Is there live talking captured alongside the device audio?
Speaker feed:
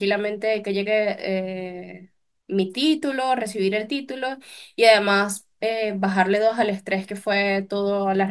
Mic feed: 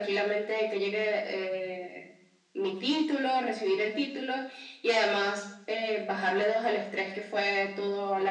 No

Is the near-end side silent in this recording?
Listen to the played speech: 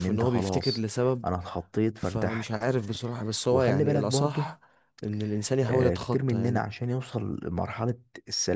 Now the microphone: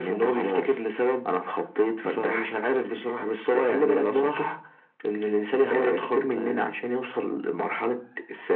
Yes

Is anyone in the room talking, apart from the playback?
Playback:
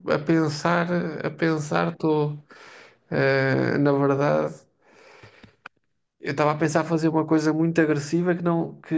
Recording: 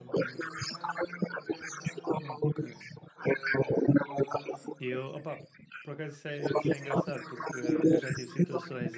Yes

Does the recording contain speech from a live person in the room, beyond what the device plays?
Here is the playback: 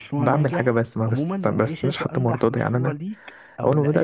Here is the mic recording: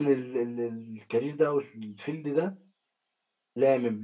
Yes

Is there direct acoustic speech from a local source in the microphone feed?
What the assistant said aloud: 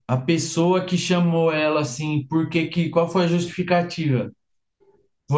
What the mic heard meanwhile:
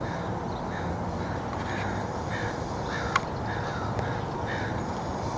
No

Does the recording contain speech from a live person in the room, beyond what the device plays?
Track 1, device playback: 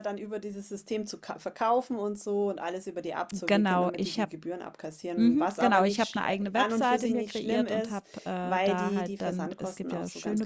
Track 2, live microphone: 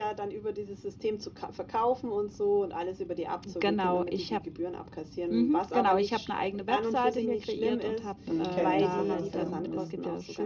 Yes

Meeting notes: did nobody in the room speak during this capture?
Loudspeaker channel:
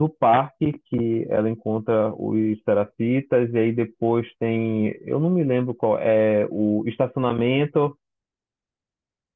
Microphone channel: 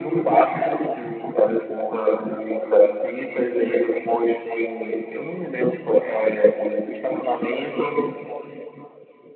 Yes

